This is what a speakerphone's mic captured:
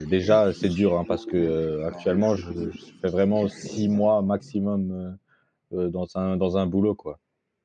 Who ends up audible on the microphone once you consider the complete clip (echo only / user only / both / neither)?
both